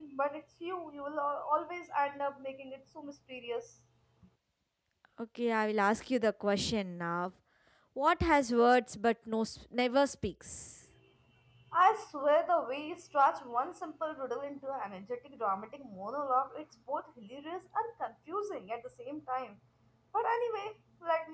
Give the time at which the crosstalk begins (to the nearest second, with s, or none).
none